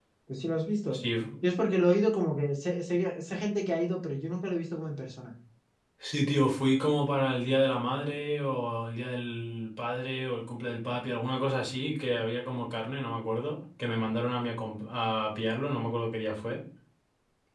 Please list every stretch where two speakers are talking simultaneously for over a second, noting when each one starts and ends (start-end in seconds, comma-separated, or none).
none